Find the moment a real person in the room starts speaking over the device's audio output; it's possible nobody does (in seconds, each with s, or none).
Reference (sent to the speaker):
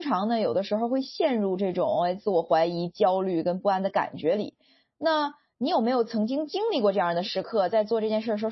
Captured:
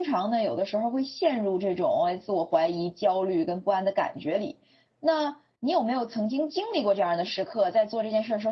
none